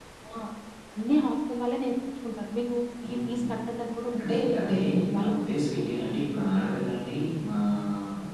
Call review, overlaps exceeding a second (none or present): none